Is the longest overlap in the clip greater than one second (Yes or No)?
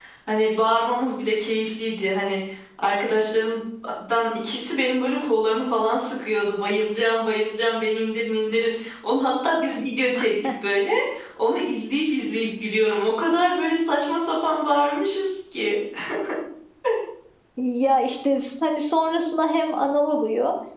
No